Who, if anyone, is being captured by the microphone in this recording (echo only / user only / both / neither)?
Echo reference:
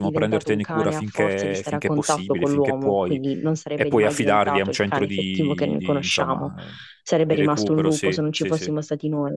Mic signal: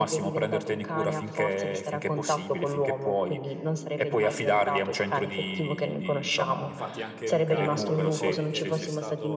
both